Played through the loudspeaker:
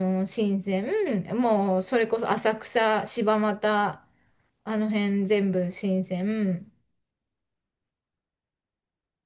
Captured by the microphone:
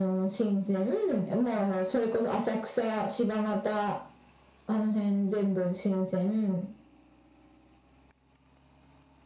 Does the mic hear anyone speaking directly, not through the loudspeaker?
No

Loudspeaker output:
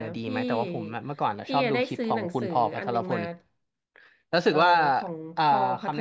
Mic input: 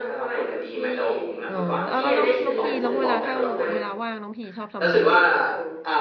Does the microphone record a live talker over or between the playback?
Yes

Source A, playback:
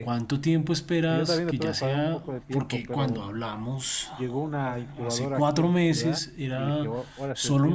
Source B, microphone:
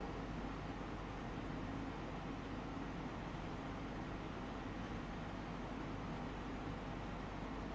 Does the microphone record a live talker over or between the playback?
No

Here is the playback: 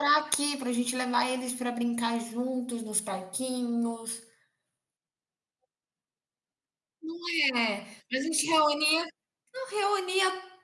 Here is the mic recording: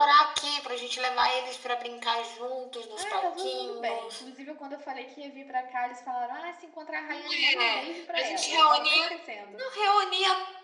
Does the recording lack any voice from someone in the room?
No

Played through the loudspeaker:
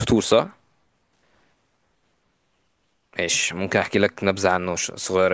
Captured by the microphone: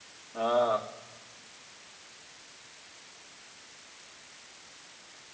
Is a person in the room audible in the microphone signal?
Yes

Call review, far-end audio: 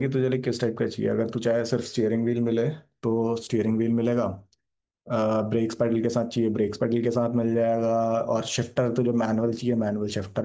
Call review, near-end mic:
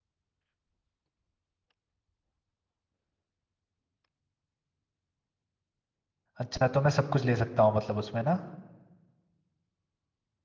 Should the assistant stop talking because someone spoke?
Yes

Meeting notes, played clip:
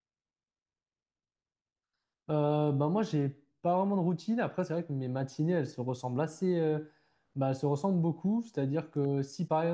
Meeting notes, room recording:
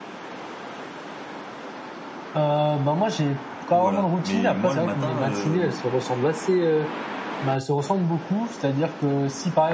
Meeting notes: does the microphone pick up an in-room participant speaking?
Yes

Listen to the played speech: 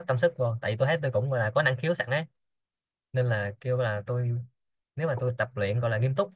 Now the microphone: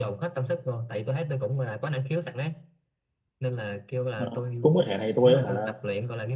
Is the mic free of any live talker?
No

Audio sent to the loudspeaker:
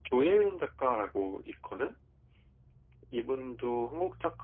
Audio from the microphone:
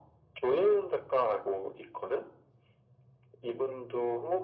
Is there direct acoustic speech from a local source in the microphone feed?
No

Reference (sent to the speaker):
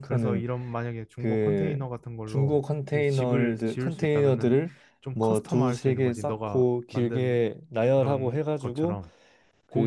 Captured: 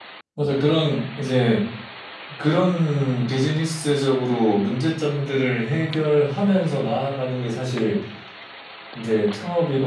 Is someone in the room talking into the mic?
Yes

